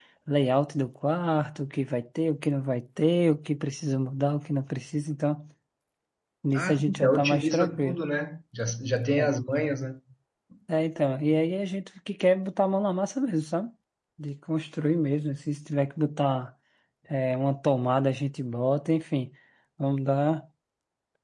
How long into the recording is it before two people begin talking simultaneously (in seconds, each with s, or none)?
6.5 s